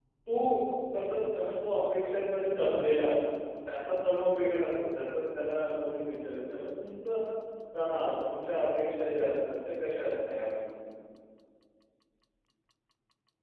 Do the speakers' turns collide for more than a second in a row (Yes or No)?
No